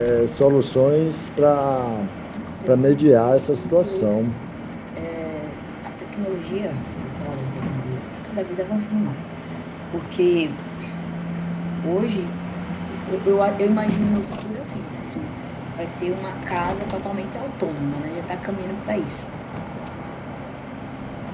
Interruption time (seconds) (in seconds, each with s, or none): 2.7 s